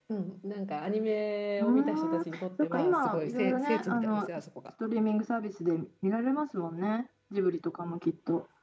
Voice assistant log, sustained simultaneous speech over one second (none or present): present